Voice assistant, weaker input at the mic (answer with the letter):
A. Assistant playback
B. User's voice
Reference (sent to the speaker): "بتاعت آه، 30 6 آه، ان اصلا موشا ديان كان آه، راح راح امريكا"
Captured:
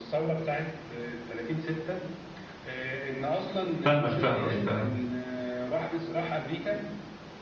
A